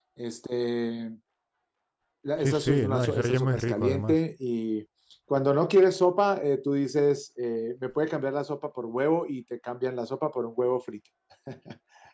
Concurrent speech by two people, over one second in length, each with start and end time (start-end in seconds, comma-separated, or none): 2.4-4.2